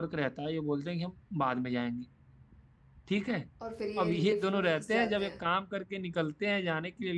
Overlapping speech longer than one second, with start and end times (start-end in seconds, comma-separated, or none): 4.0-5.3